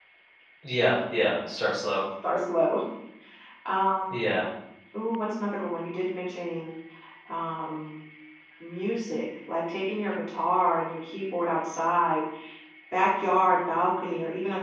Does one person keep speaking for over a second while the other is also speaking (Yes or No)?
No